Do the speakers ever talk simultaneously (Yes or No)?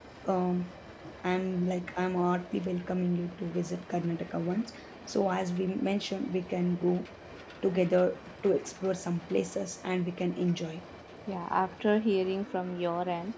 No